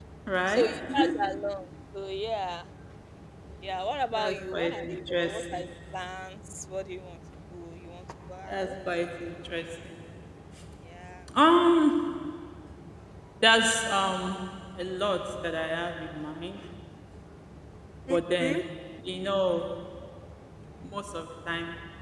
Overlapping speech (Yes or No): Yes